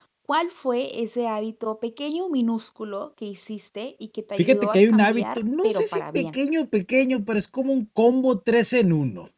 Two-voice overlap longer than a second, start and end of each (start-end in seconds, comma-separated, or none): 4.4-6.3